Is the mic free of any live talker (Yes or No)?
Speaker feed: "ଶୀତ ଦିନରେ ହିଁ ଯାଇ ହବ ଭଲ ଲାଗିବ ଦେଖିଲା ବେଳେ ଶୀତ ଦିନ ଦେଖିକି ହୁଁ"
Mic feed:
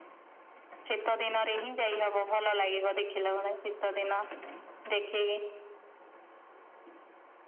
Yes